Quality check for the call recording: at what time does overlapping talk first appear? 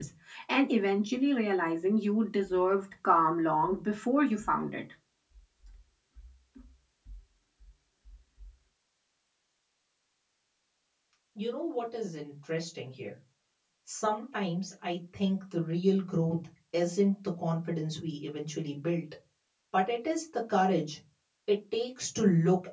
none

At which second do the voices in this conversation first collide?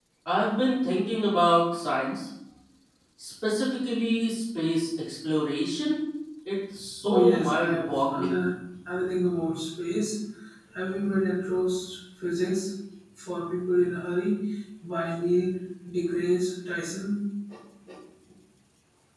7 s

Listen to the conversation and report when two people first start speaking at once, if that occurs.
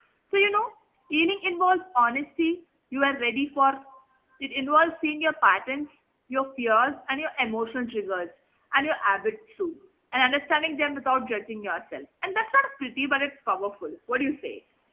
none

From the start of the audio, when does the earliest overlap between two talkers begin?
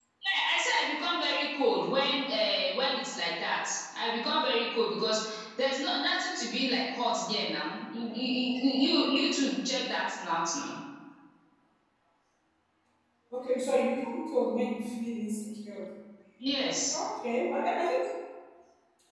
none

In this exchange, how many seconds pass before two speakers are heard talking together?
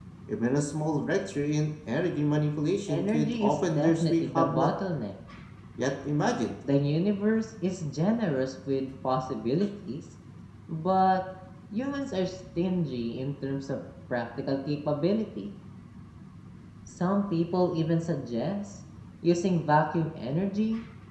3 s

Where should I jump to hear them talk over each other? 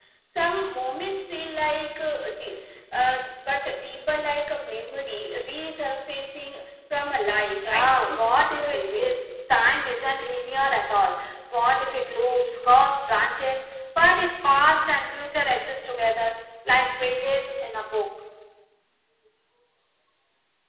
8 s

